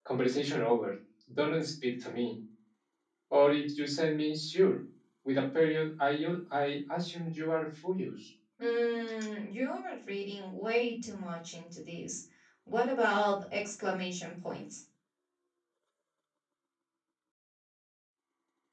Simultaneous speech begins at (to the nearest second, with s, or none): none